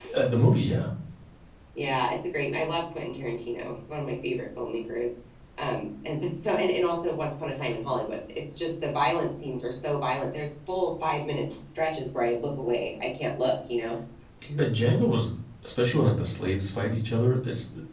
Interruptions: none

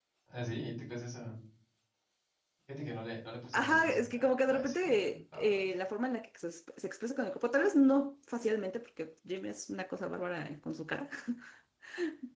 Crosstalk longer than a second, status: present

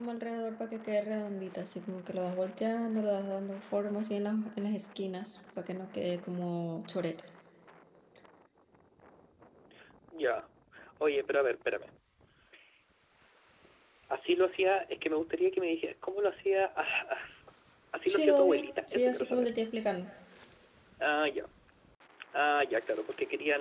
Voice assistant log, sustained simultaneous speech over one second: present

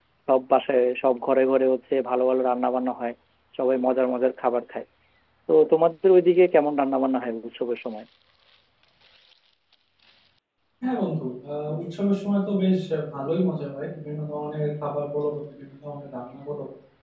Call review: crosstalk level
none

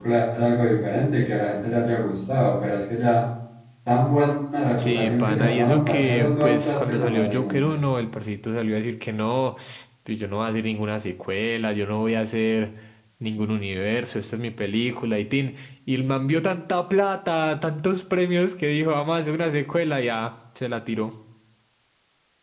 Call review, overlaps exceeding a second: present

